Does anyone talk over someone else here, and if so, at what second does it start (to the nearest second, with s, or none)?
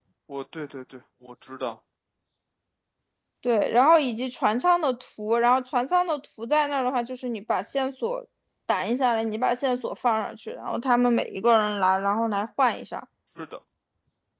none